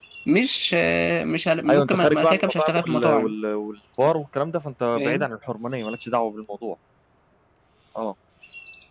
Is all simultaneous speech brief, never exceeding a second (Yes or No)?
No